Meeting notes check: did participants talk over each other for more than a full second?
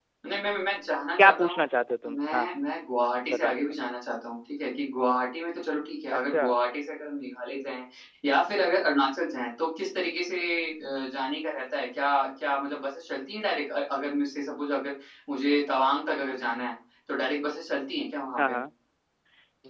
No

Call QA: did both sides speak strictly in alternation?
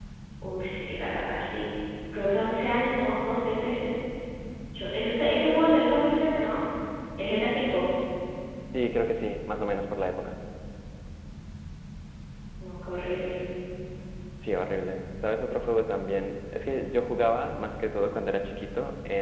Yes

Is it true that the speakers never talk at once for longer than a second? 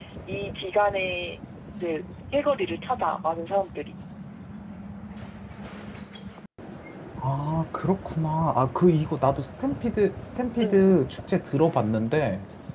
Yes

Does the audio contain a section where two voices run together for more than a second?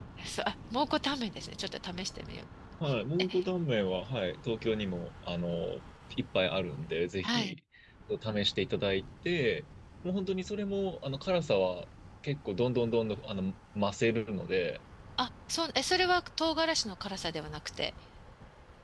No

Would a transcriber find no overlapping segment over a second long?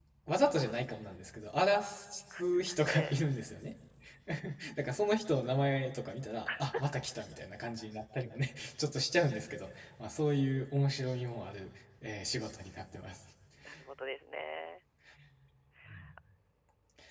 Yes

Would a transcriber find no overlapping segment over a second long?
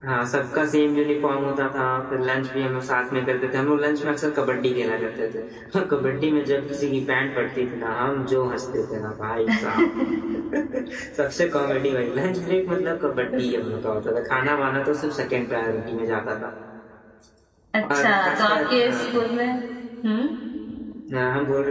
No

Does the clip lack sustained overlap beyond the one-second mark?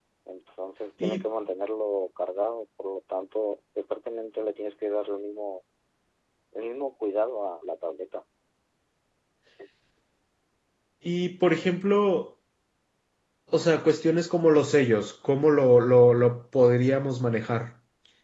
Yes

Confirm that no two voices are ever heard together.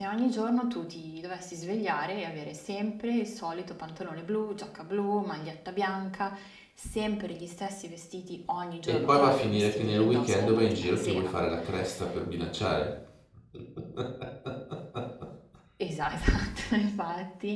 No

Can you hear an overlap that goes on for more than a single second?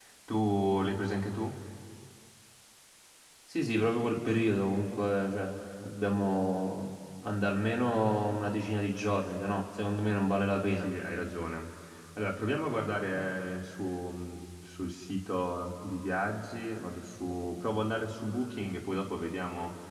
No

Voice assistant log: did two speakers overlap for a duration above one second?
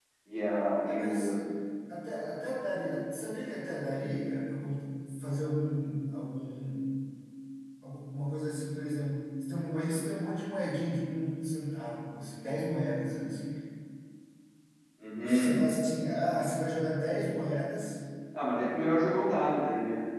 No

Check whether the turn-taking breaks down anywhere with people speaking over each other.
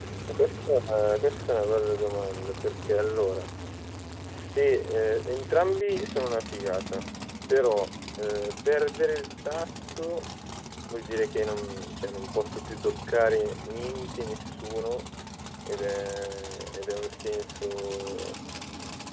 No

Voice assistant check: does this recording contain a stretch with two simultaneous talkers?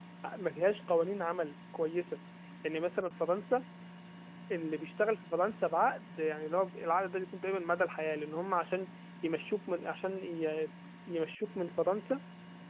No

